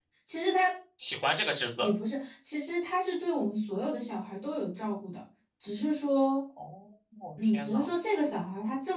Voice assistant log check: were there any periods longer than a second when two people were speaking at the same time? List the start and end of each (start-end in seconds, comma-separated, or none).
none